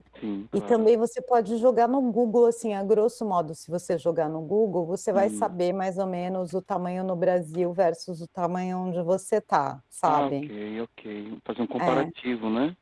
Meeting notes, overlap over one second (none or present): none